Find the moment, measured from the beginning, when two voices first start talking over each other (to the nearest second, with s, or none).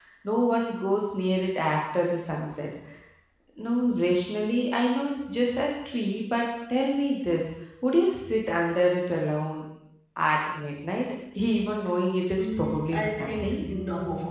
12 s